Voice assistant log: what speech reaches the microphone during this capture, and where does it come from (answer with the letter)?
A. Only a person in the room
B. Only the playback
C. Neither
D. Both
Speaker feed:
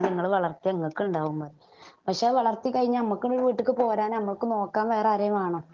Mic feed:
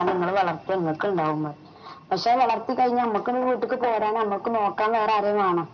B